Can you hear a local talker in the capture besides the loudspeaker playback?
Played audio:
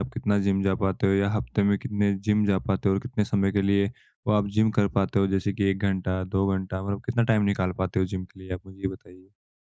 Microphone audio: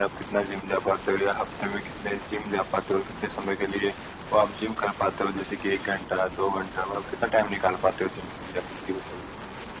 No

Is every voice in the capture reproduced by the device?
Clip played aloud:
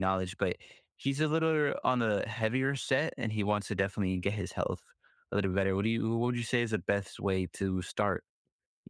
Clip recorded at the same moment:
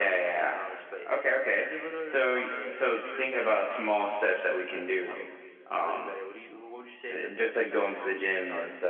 No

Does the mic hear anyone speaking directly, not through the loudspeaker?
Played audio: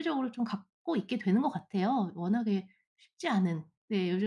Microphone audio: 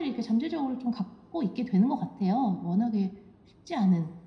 No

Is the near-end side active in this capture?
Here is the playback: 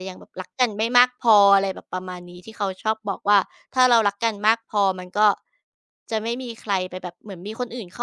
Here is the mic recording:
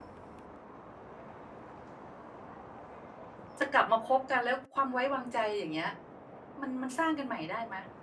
Yes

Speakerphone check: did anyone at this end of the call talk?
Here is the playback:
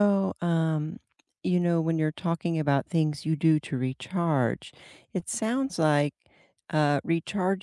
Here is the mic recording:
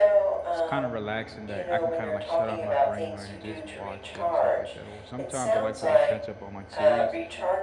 Yes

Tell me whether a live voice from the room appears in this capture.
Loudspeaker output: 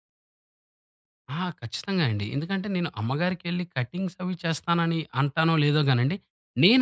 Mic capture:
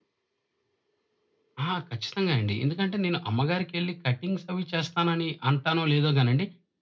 No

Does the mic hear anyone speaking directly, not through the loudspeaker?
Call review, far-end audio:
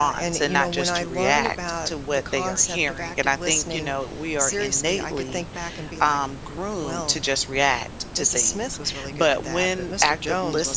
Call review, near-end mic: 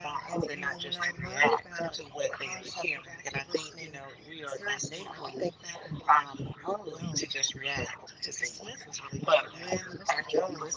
No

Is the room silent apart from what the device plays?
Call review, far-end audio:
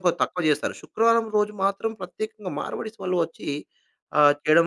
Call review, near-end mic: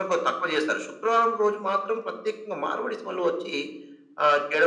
Yes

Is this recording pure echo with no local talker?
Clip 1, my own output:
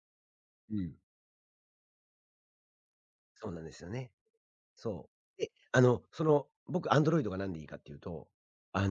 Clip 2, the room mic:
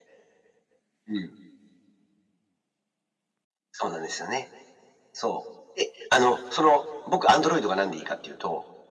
Yes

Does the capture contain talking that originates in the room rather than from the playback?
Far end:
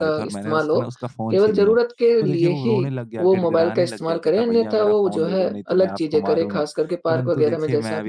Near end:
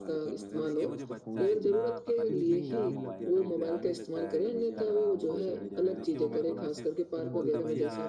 Yes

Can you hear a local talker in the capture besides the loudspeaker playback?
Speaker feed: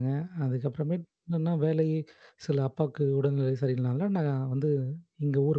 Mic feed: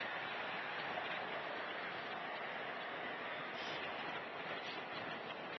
No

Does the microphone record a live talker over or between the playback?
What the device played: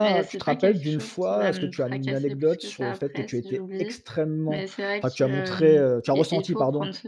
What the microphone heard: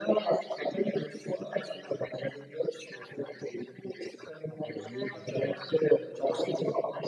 Yes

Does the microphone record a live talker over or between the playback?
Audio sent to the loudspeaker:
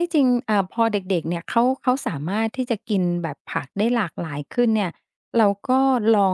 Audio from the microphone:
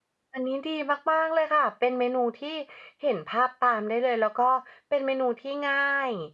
Yes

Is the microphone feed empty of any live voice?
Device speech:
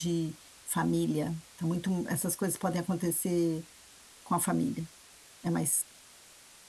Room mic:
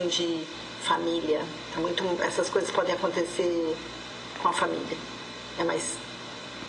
Yes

